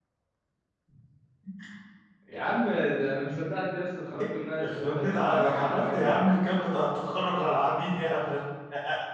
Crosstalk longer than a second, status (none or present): present